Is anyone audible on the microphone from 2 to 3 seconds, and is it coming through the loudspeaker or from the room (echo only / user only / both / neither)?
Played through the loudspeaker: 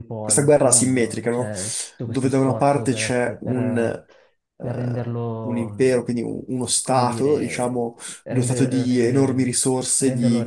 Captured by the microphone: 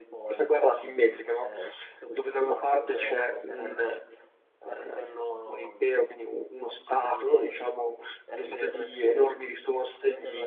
echo only